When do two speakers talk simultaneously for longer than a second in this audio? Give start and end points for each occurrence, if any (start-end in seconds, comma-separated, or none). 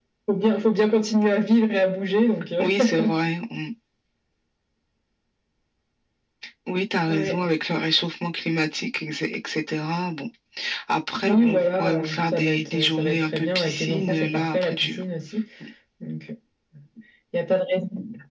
11.3-15.0